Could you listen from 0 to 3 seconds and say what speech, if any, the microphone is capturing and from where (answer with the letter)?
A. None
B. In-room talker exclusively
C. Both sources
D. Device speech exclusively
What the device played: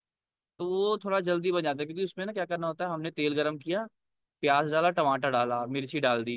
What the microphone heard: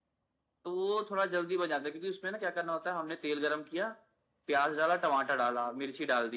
D